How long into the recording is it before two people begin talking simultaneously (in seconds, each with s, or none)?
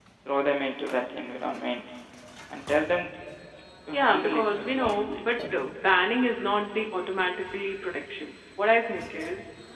3.9 s